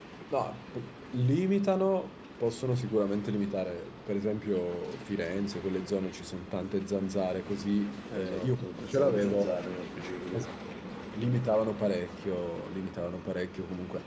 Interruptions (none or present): present